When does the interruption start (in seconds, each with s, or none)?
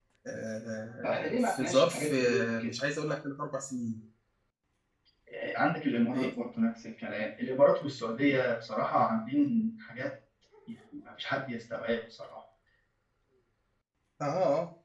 1.0 s